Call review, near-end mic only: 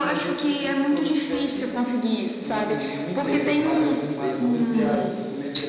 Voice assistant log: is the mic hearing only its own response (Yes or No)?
No